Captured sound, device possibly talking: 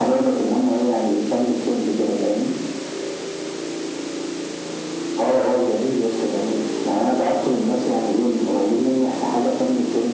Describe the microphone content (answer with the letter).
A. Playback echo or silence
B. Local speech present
A